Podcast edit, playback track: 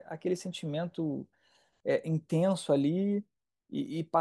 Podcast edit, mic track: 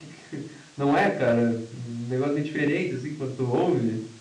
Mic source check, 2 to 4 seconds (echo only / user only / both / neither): user only